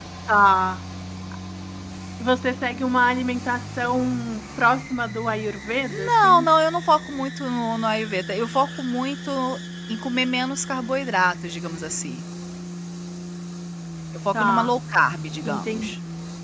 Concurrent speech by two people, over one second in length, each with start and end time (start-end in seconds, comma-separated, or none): none